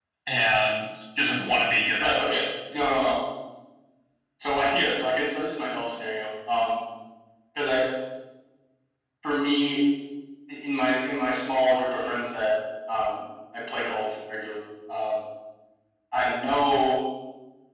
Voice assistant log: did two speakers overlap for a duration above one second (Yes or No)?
No